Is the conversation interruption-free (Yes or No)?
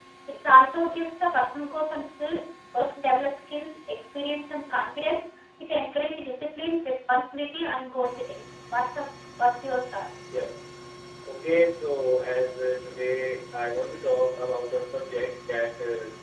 Yes